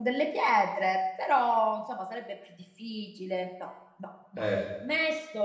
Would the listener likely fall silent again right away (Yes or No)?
Yes